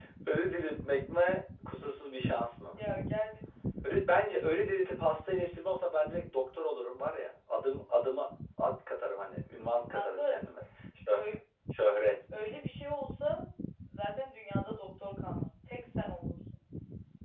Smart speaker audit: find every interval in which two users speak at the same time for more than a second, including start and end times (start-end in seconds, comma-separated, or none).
none